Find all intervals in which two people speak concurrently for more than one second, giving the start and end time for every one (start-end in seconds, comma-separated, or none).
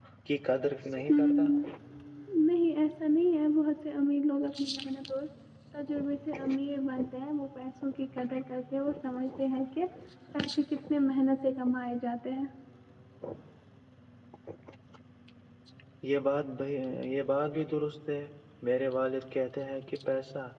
none